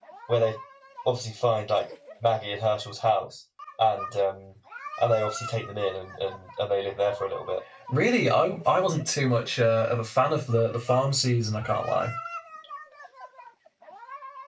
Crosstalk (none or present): none